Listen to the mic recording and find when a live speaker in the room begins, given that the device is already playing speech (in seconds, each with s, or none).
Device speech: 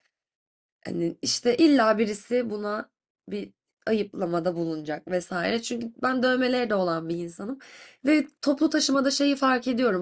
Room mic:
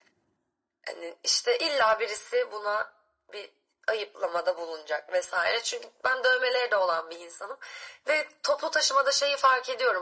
none